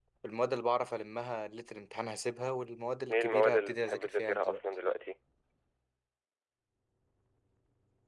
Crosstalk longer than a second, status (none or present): present